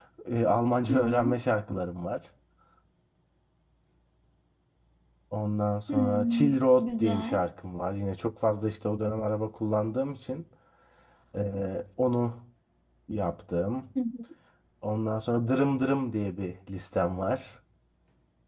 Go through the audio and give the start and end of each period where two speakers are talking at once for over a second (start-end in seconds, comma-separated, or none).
5.9-7.4